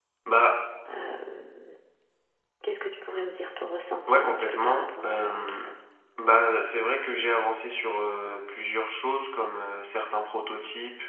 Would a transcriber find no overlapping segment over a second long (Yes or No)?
No